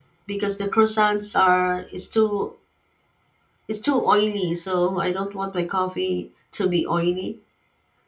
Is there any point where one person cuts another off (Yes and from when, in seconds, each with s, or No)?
No